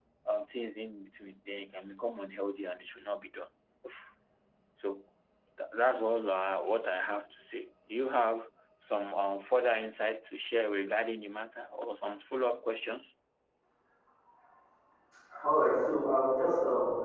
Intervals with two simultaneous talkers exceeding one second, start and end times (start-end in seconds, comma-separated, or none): none